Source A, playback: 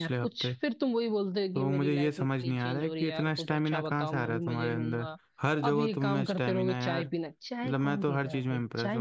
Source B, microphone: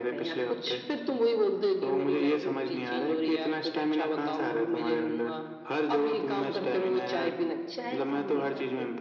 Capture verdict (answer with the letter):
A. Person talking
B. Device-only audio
B